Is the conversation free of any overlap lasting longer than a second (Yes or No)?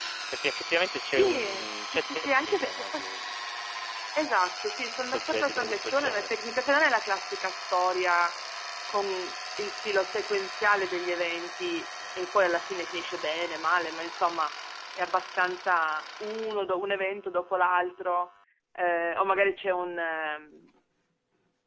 No